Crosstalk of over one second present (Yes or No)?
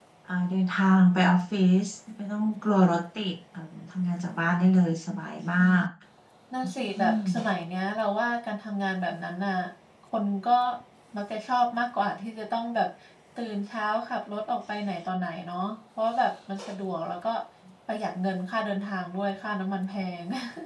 No